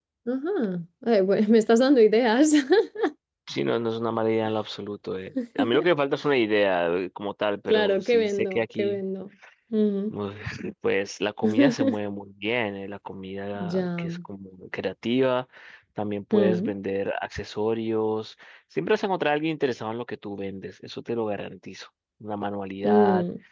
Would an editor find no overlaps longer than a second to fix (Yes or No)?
No